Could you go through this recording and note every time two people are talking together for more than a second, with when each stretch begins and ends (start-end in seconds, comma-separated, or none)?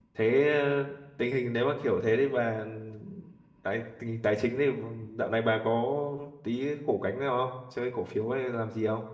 none